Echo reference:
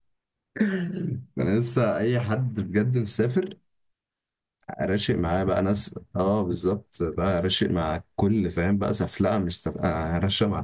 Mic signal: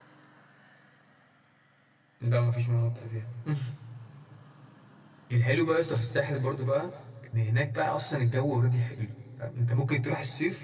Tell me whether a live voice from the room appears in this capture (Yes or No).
Yes